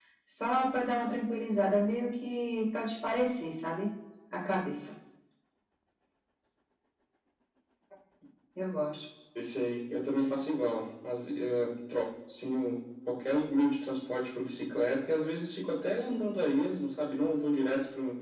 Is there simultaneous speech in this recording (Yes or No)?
No